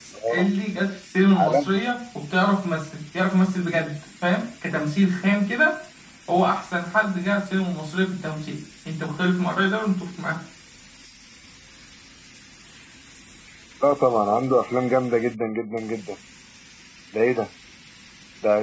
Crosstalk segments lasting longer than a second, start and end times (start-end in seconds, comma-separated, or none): none